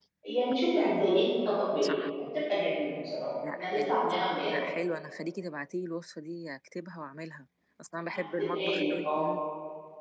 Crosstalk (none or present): present